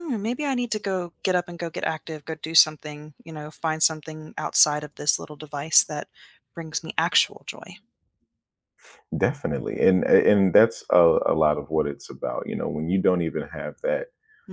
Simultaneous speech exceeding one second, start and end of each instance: none

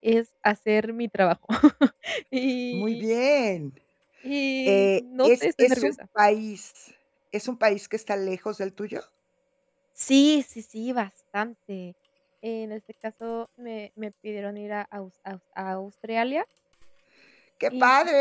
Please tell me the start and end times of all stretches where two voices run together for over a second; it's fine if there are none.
4.7-6.0

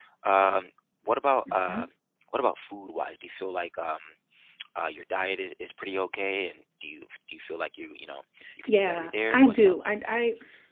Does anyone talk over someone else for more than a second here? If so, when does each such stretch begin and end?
8.7-9.9

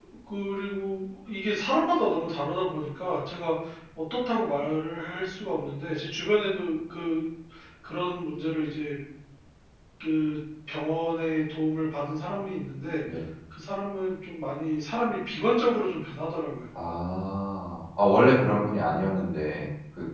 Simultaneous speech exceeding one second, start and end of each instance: none

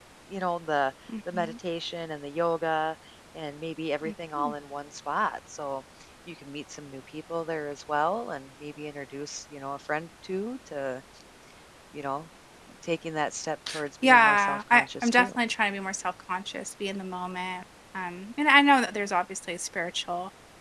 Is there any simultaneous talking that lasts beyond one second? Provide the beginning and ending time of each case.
14.0-15.3

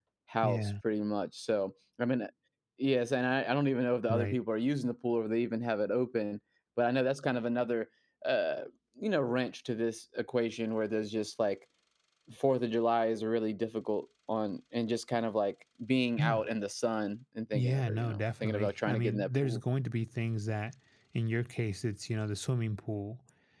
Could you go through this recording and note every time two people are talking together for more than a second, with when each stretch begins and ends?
17.5-19.6

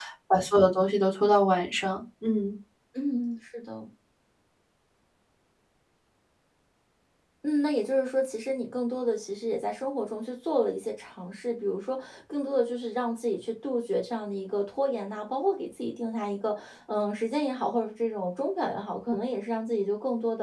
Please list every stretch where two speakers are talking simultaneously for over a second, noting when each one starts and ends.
none

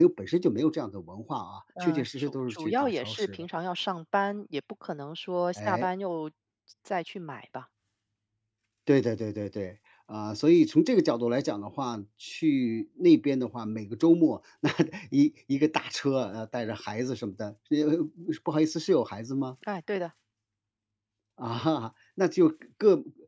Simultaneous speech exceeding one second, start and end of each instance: 1.8-3.4

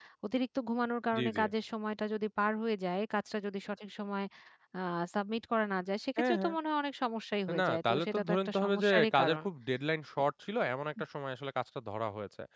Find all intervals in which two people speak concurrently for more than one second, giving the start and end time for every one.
7.6-9.4

